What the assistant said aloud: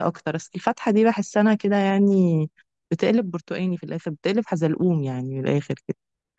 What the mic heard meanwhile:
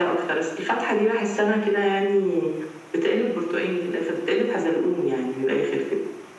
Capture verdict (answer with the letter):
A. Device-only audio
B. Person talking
A